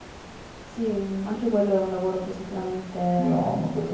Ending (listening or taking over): taking over